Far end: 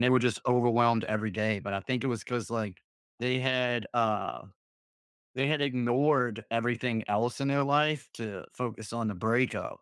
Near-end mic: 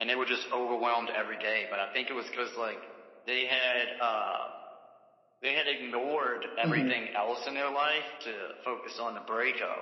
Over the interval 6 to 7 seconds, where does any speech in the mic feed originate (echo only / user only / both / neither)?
both